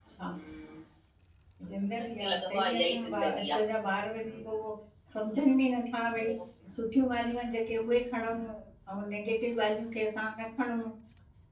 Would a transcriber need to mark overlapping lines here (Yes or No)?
Yes